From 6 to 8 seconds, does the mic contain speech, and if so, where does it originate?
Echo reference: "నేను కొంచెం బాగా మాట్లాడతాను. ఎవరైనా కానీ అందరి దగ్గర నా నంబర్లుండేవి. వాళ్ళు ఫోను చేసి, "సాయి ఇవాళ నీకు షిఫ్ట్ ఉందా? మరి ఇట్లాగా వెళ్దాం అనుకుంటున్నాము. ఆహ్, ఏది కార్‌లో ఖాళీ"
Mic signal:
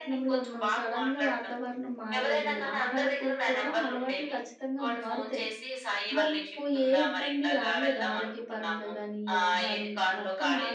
both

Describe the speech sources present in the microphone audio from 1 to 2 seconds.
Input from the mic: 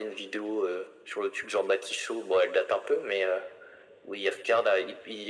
echo only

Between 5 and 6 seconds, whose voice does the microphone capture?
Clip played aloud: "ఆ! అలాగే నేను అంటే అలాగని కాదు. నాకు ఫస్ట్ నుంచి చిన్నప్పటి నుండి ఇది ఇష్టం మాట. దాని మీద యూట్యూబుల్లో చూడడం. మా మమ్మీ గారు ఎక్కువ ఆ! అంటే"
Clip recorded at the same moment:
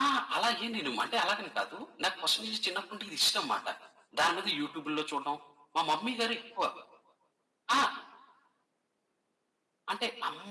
echo only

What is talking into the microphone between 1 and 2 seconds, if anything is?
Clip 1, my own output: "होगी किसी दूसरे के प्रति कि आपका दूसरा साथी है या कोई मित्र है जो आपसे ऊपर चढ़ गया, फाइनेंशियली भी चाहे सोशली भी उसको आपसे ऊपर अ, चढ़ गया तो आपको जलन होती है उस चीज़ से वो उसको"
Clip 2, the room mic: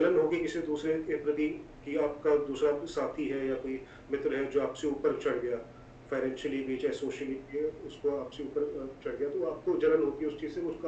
echo only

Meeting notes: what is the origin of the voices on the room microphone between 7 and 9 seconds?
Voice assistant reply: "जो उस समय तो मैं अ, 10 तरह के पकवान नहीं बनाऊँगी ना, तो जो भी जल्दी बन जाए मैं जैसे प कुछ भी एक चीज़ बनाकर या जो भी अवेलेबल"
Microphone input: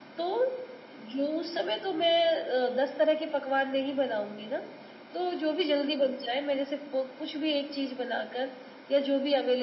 echo only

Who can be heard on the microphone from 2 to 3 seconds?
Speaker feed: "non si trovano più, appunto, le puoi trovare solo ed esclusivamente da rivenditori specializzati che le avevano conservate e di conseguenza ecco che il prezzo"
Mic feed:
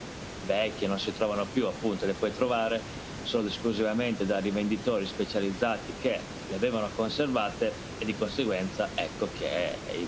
echo only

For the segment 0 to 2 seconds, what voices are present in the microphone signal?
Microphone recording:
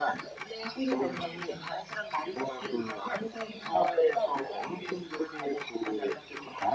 both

